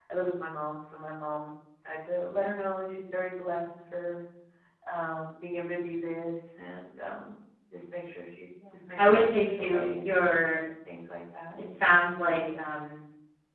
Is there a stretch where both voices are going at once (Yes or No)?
Yes